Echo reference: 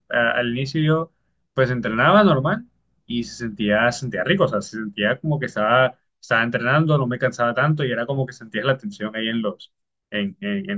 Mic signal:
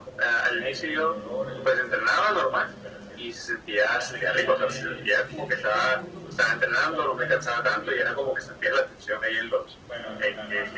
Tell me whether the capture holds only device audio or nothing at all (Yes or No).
No